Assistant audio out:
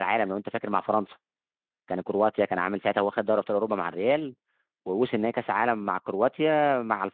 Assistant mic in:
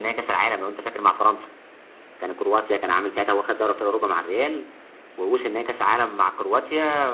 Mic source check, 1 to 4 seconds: echo only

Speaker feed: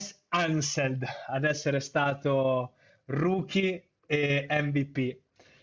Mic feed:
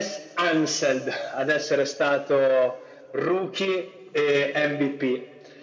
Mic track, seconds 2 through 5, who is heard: echo only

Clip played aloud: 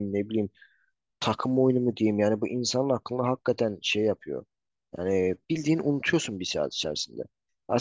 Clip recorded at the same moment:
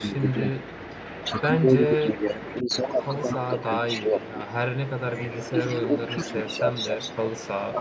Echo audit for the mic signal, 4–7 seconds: both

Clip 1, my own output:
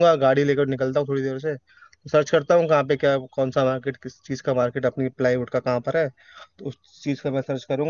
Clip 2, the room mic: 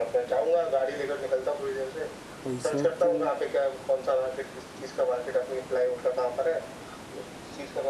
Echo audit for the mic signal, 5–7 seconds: echo only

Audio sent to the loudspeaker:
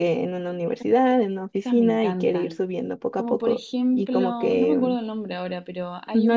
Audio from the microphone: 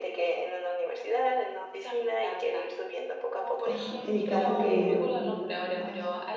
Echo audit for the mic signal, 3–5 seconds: both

